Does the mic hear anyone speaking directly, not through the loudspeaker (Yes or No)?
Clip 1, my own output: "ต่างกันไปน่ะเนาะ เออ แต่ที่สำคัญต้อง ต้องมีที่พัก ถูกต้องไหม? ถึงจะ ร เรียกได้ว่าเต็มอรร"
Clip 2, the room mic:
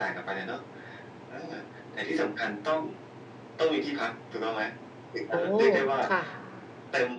Yes